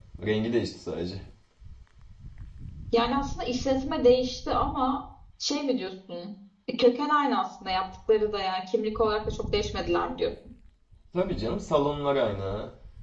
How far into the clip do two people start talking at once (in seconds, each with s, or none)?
none